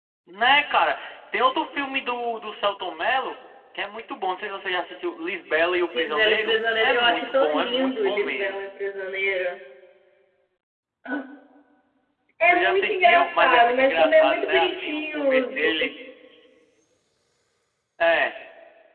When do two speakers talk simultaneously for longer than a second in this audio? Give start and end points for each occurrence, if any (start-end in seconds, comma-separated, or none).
6.0-8.6, 12.5-15.5